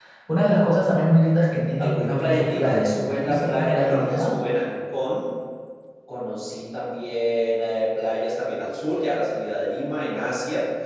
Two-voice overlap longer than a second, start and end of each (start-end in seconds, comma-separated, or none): 1.8-4.3